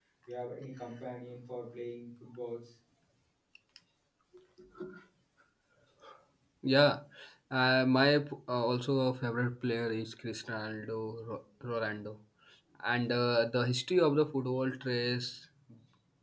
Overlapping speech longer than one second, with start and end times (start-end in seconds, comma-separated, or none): none